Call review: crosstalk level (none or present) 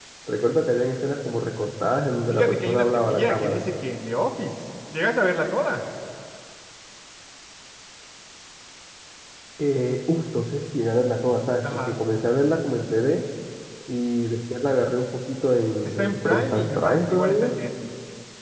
present